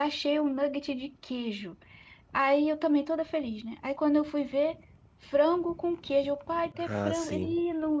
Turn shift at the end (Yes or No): No